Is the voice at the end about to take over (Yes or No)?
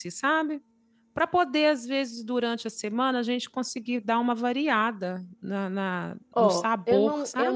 Yes